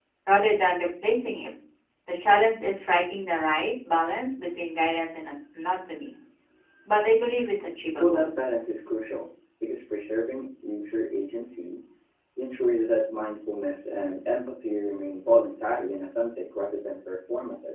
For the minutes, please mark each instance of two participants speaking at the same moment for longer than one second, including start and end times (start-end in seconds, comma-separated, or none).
none